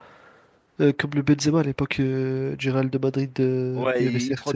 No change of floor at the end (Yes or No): No